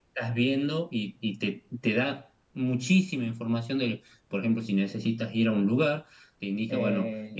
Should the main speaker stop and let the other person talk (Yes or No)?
No